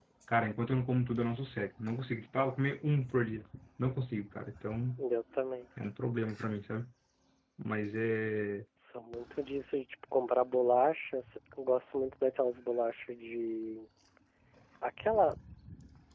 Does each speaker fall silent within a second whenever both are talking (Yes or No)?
Yes